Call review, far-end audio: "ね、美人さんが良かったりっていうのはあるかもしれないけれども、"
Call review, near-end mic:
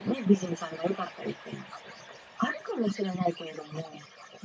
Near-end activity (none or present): none